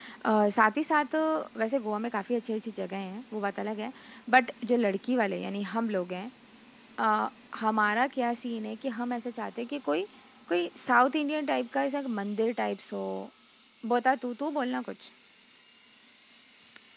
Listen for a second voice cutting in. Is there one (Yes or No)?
No